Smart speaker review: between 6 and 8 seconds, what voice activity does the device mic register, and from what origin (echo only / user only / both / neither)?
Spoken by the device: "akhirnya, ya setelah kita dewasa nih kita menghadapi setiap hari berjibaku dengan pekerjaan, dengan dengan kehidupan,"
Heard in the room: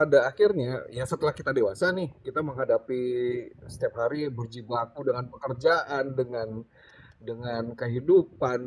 echo only